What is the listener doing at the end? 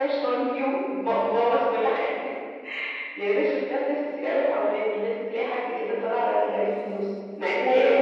listening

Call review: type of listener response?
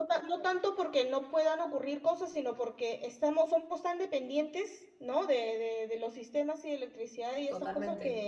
listening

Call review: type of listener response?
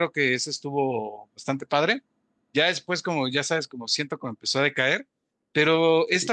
listening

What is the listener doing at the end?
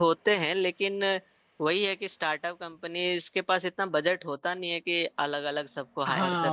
taking over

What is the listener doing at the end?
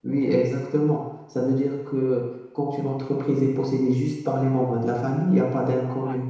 listening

